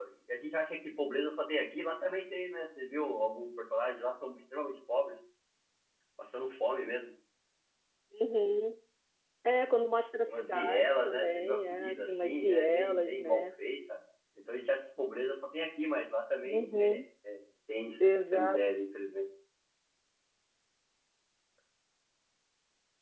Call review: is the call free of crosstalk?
No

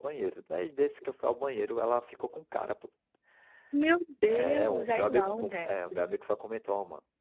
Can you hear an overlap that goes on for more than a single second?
Yes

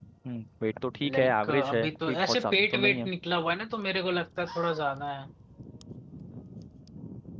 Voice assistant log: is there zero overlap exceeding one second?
No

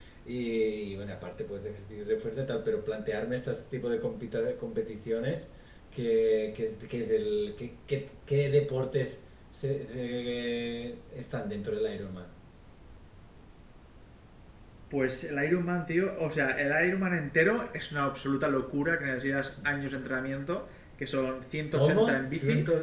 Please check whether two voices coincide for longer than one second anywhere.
No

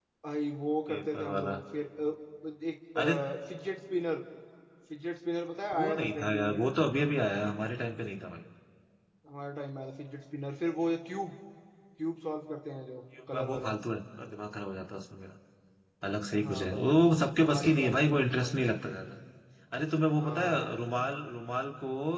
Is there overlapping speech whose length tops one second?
Yes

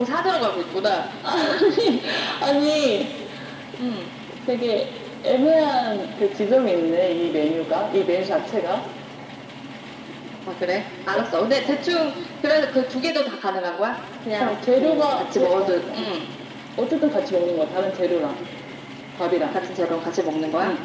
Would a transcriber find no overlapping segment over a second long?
No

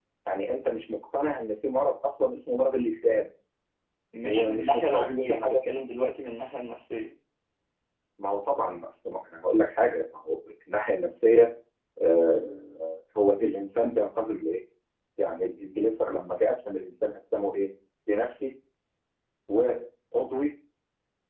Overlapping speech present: Yes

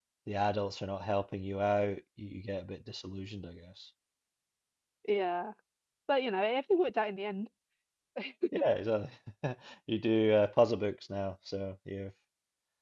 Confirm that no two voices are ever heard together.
Yes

